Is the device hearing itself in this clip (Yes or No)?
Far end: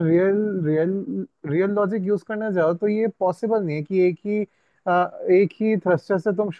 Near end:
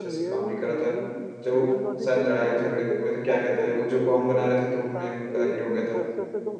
Yes